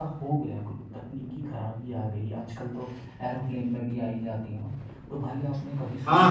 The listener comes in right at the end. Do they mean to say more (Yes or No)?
No